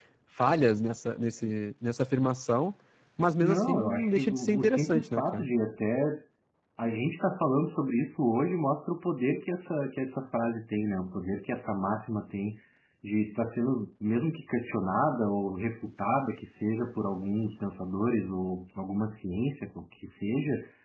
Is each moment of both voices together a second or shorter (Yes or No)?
No